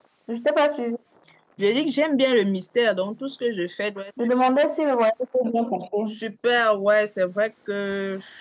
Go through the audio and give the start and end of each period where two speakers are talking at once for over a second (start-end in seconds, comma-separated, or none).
none